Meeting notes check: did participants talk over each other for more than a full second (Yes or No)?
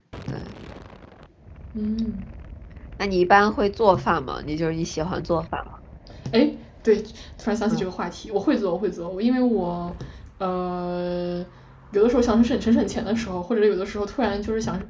No